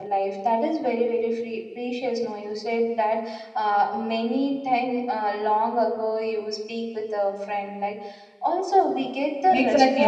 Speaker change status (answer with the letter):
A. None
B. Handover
B